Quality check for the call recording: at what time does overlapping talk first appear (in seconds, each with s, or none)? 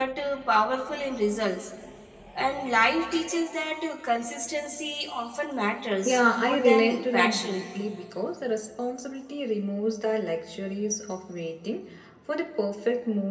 6.0 s